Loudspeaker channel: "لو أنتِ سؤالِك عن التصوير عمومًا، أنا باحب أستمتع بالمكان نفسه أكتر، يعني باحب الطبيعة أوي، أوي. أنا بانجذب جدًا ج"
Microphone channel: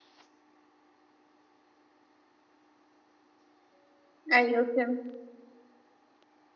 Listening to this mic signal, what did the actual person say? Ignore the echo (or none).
أيوه فهمت.